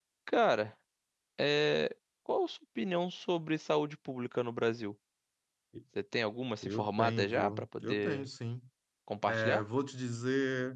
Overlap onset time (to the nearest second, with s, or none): 7 s